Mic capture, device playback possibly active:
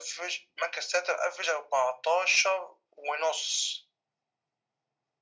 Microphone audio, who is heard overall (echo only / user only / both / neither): echo only